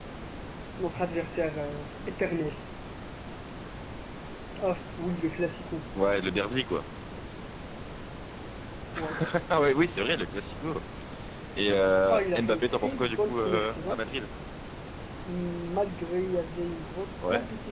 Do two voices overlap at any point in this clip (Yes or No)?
Yes